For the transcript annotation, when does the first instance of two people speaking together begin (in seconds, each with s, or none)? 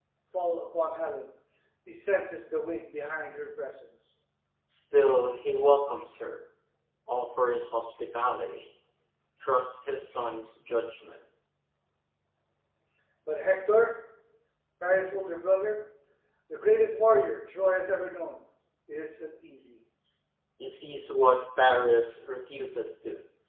none